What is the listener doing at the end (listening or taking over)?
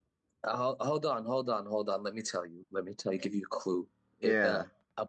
listening